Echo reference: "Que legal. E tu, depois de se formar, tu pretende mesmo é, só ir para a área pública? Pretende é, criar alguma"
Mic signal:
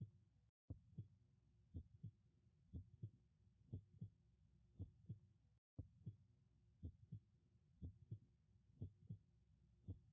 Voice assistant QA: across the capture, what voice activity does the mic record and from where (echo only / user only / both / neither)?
neither